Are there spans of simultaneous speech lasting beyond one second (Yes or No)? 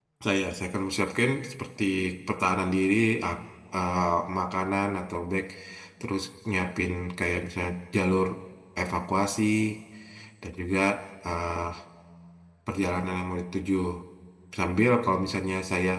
No